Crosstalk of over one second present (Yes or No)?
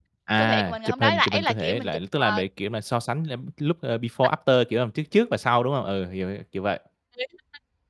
Yes